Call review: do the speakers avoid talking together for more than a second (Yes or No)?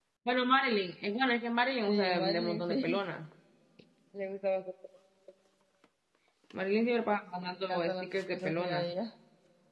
No